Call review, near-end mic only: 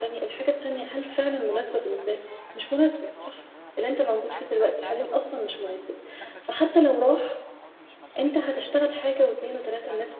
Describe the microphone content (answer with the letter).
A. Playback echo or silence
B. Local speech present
B